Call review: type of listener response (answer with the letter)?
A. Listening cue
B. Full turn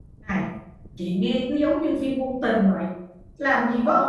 A